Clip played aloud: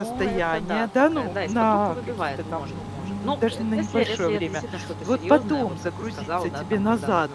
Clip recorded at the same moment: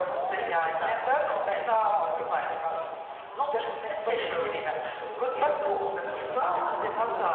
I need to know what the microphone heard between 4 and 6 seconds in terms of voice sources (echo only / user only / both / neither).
both